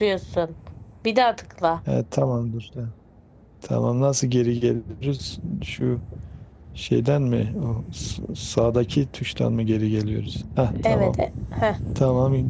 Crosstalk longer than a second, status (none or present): none